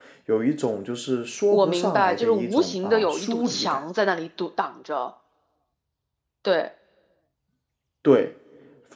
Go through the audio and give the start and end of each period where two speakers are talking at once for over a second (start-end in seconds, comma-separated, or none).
1.5-3.8